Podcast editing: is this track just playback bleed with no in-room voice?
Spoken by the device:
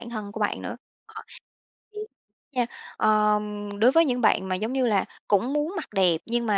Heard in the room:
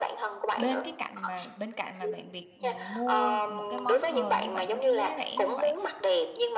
No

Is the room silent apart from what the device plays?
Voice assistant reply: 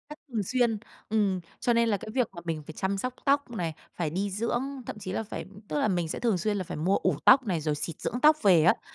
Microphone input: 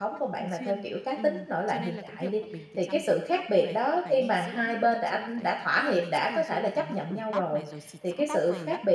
No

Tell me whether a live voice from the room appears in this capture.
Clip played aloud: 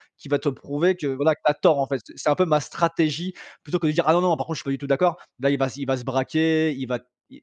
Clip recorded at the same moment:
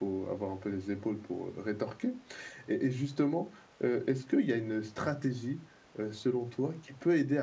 Yes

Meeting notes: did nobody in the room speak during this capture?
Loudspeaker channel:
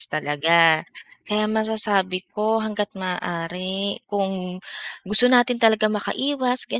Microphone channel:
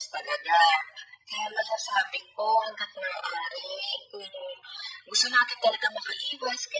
Yes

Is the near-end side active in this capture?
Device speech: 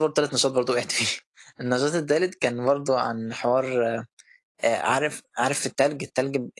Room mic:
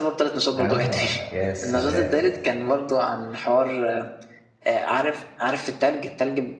Yes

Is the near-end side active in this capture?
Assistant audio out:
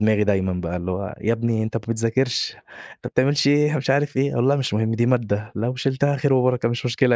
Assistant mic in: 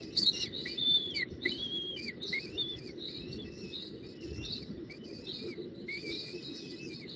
No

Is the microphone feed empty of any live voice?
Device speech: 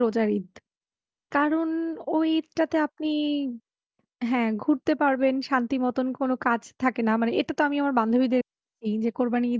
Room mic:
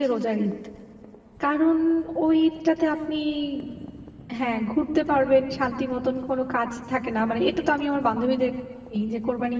Yes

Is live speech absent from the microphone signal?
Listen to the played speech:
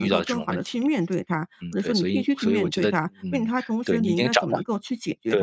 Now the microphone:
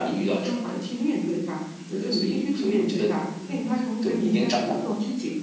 Yes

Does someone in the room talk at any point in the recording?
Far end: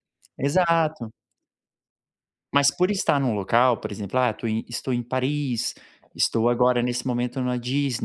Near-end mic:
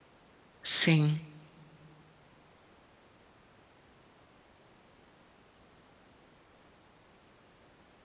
Yes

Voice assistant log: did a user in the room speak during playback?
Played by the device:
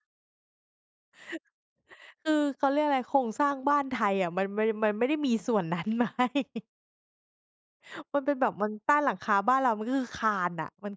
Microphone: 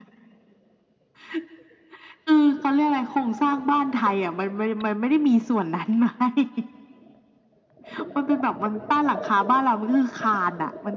No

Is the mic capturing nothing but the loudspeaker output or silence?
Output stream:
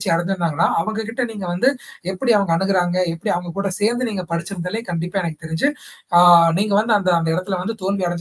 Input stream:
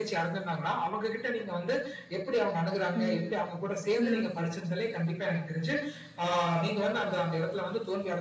No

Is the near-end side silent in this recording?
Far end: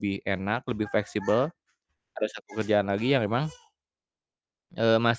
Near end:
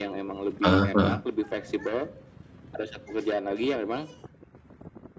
No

